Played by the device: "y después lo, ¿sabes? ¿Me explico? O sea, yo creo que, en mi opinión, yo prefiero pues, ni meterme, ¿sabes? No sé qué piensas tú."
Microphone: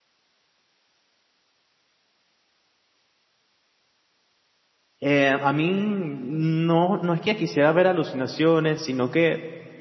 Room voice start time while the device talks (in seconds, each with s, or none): 5.0 s